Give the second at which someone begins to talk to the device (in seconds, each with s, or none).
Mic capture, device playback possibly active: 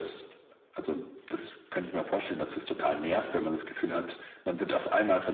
none